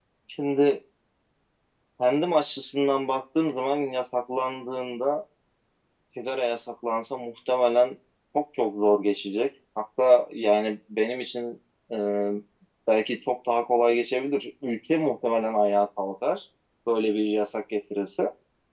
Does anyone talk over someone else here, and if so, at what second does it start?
none

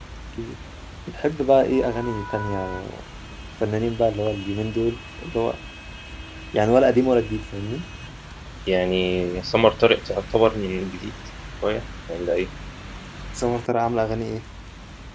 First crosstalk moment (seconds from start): none

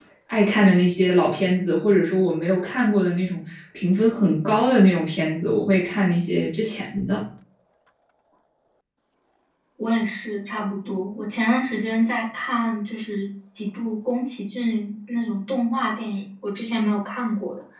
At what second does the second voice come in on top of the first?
none

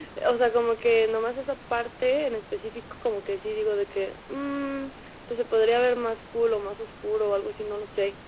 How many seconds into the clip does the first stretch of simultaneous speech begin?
none

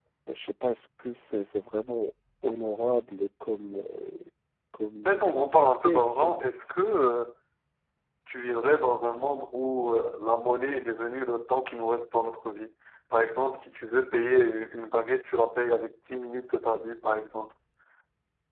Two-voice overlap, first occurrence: 5.0 s

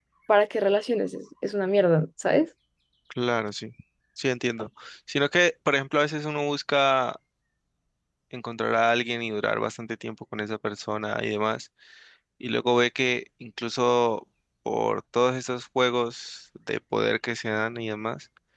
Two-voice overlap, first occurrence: none

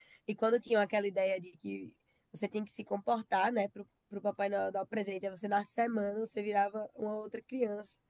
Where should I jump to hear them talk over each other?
none

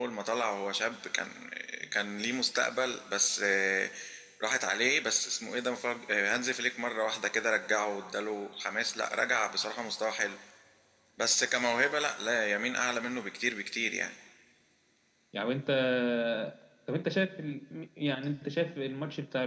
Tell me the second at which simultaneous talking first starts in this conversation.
none

